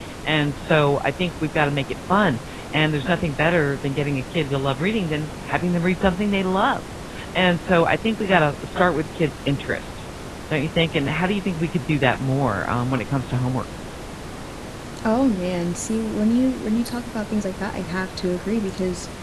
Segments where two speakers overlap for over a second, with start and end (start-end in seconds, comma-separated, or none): none